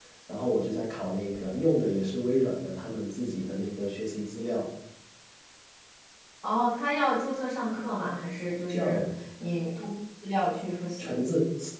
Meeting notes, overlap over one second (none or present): none